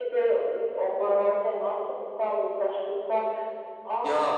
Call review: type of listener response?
taking over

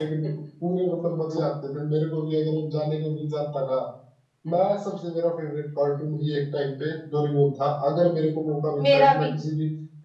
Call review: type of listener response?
listening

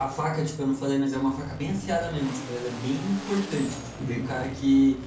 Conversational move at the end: listening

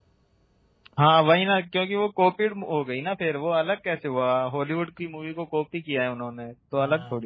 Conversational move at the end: taking over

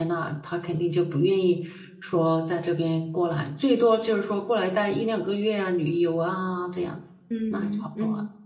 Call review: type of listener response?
taking over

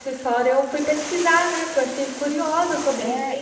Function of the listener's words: taking over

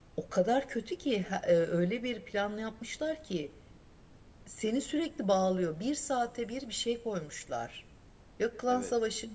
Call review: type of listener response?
listening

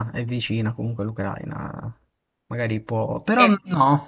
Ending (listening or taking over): listening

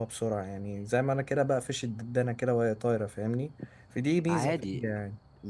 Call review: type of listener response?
taking over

